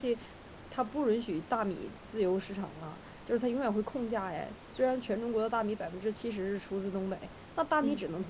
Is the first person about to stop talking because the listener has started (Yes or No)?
No